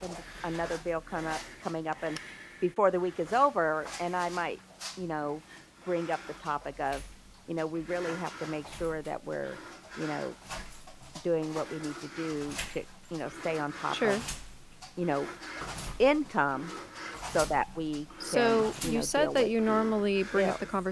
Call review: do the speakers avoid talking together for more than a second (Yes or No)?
No